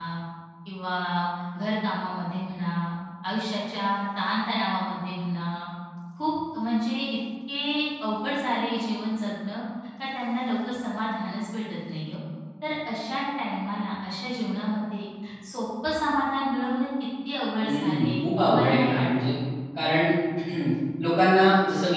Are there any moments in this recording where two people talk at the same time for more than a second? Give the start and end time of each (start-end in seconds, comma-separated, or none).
17.7-19.3